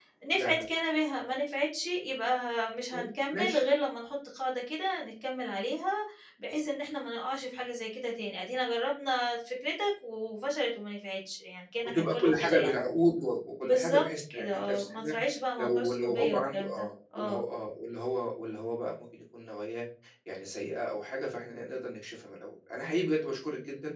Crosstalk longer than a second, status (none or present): present